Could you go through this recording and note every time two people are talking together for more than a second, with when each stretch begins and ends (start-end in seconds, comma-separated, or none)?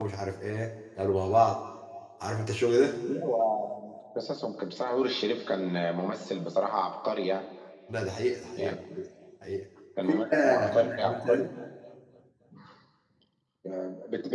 10.1-11.4